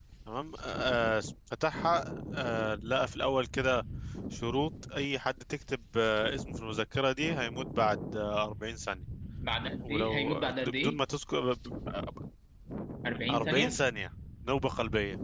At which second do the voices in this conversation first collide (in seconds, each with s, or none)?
9.8 s